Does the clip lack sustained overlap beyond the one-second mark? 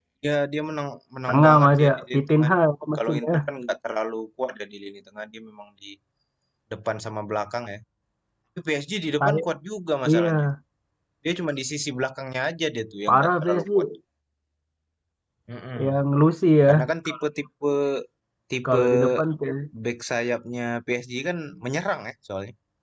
No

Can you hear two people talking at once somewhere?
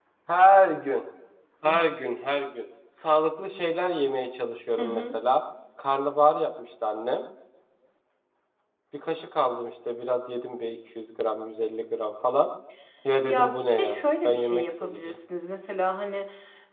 Yes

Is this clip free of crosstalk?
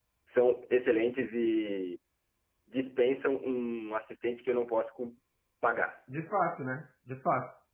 Yes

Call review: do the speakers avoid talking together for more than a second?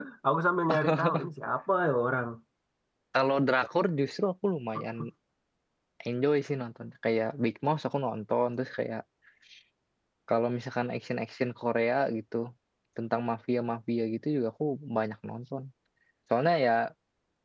Yes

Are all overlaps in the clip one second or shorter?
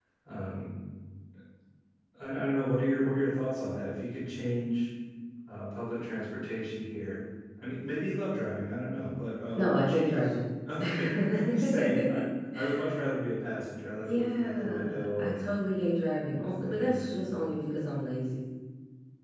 No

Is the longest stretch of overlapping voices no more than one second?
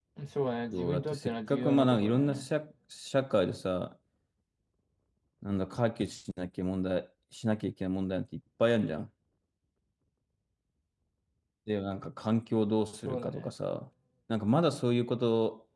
No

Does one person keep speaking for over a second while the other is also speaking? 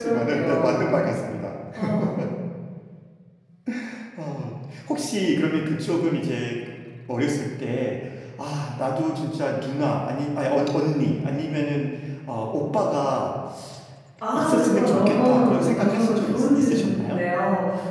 Yes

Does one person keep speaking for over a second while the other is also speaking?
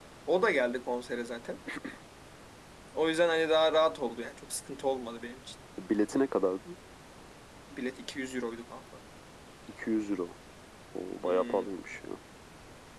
No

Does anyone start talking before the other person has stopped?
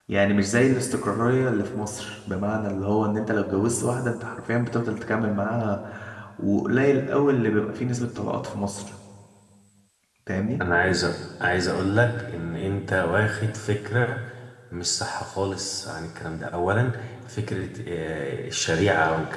No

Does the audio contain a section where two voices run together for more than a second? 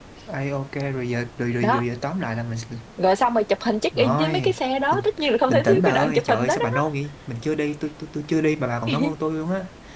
Yes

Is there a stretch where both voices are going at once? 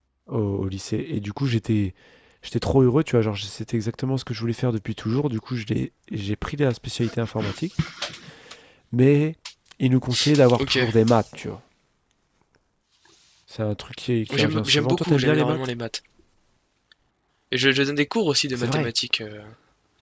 Yes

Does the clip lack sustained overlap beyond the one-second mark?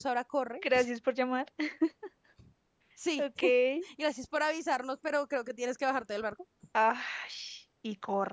Yes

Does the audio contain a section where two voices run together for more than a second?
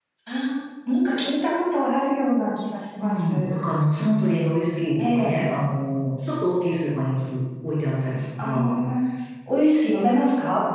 No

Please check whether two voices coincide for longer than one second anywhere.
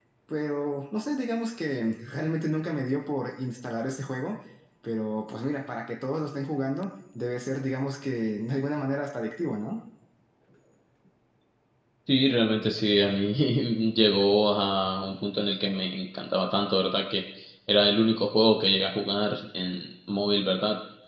No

